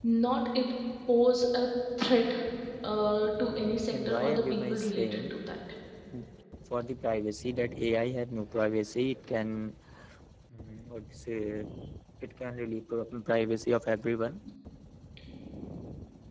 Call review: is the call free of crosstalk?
No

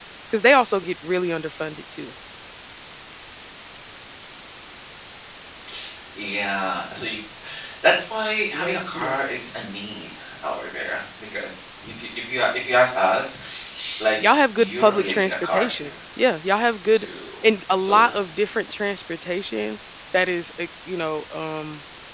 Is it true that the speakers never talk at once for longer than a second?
No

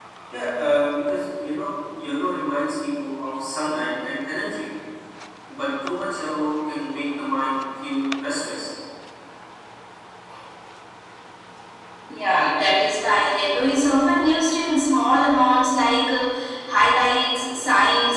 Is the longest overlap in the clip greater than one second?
No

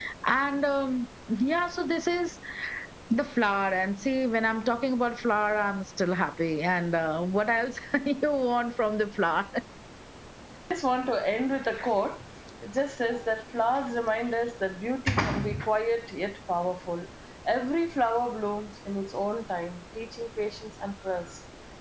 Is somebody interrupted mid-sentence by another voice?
No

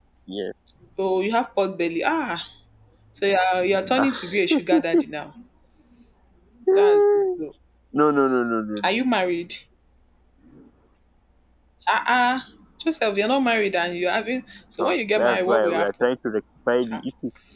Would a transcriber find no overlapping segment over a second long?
No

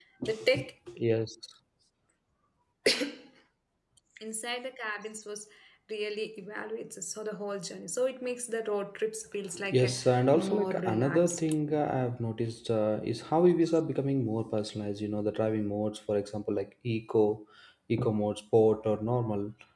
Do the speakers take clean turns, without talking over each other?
No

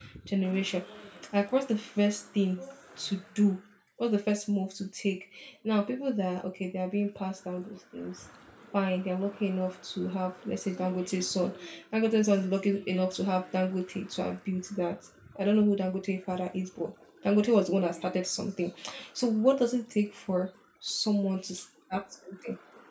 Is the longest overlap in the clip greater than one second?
No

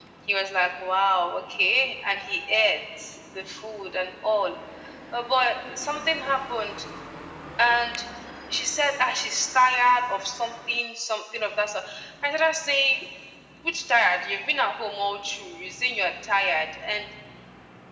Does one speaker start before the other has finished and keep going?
No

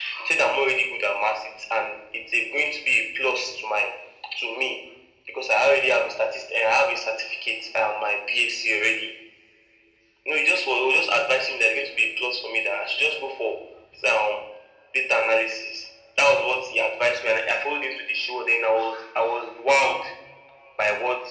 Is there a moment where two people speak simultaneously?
No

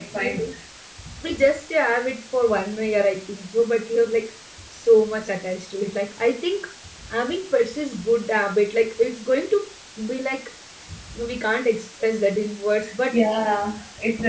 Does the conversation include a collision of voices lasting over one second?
No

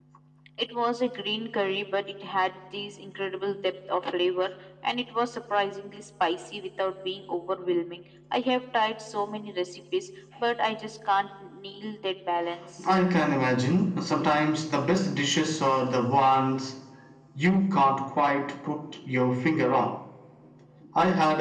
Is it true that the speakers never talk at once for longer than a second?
Yes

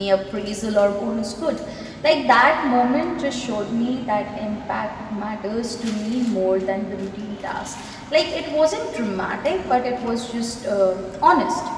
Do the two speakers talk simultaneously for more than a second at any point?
No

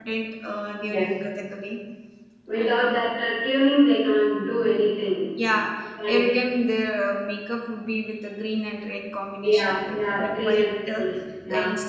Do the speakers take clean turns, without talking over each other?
No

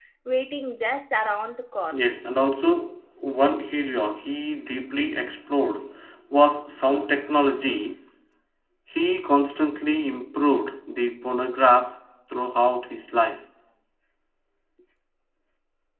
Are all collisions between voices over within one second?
Yes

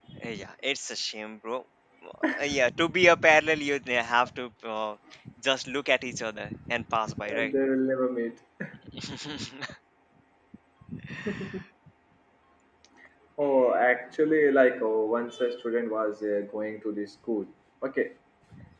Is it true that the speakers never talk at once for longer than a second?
Yes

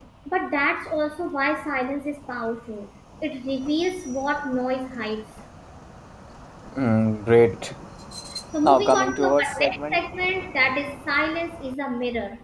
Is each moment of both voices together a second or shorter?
No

